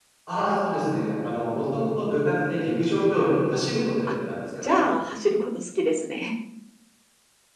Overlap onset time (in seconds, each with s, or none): none